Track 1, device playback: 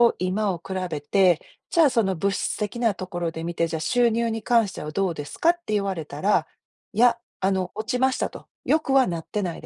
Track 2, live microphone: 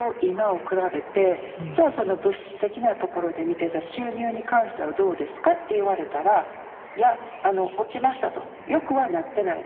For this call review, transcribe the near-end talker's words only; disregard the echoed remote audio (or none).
うーん。